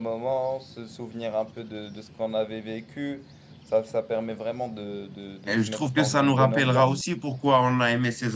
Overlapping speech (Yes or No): Yes